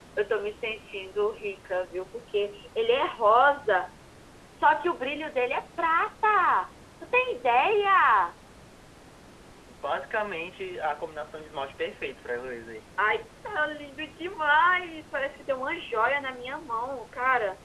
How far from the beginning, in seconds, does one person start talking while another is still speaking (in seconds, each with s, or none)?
none